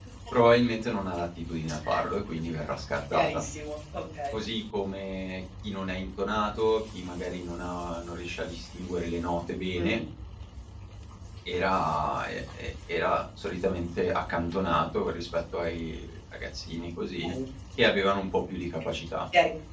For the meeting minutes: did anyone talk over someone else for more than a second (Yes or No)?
No